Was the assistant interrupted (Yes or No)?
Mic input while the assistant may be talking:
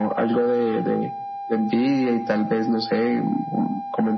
No